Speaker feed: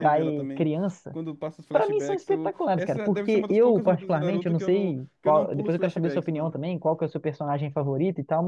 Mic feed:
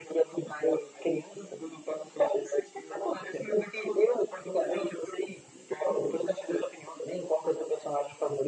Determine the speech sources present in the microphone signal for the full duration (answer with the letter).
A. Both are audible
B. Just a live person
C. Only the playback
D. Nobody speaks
C